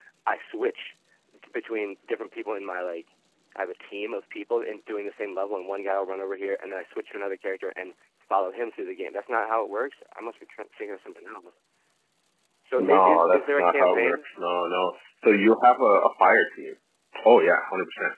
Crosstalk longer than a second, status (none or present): present